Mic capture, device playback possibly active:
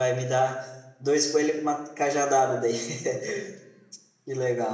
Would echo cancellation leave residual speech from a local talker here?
Yes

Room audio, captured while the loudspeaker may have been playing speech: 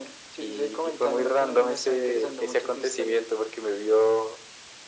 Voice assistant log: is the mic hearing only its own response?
Yes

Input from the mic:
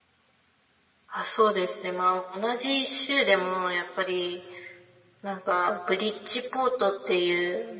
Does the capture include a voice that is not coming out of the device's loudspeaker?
No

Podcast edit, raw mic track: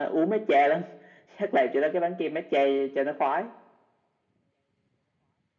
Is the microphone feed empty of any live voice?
Yes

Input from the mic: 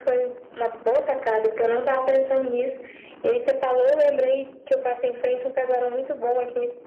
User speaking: No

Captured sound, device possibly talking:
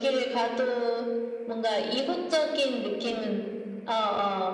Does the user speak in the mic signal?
No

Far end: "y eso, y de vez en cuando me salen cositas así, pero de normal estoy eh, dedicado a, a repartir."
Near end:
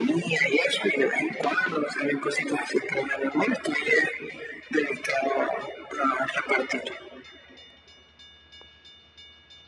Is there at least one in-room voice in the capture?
No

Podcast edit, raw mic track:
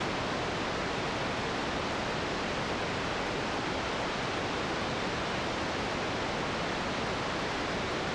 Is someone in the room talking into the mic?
No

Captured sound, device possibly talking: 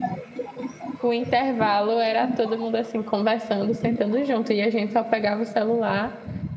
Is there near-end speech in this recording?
Yes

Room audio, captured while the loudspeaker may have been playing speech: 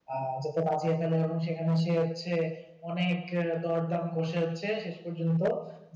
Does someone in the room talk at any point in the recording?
Yes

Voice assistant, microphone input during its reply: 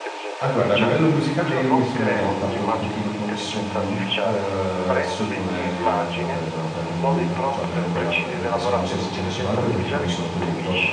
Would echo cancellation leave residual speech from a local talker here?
Yes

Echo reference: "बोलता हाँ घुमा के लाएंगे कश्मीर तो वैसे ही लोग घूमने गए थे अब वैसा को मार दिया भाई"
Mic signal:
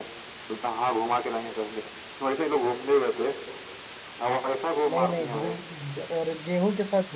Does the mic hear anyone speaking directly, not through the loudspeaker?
Yes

